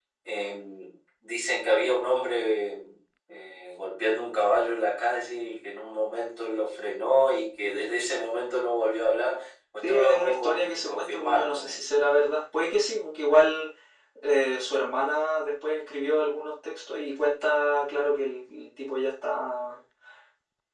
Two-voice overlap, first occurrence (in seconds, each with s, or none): 9.8 s